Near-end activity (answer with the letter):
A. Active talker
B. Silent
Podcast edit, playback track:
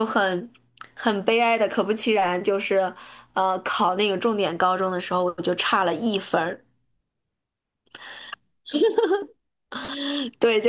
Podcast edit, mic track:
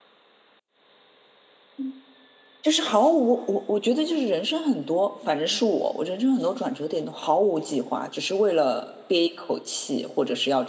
A